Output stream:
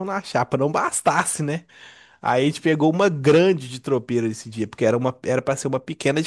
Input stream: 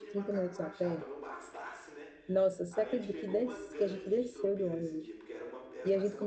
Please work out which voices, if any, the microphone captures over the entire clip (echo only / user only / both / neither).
both